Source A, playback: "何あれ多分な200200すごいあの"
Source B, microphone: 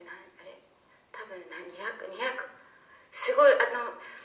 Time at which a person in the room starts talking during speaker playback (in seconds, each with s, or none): none